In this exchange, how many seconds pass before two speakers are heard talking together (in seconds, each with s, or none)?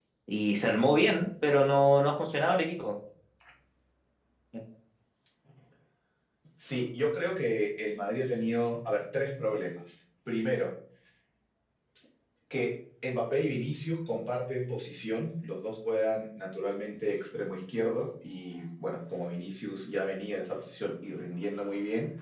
none